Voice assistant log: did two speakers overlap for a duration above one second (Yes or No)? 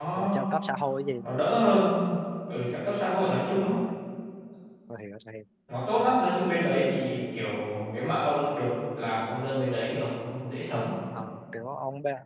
No